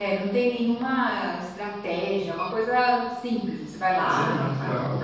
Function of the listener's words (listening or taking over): taking over